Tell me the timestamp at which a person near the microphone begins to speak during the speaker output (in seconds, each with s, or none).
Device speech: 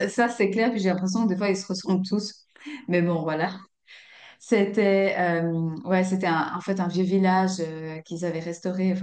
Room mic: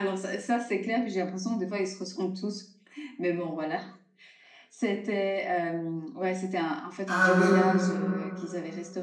7.1 s